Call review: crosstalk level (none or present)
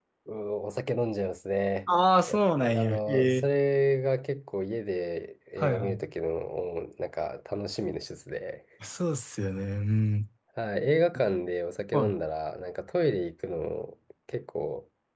present